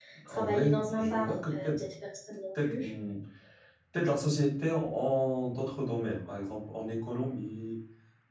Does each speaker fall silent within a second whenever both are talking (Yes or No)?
No